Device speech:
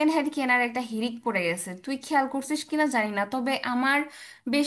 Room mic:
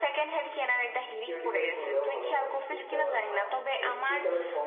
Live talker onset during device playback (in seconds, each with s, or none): 1.2 s